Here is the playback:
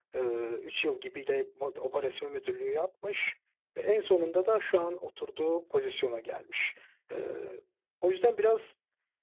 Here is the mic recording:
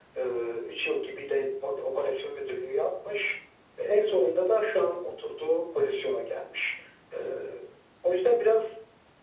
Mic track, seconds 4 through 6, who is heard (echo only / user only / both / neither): echo only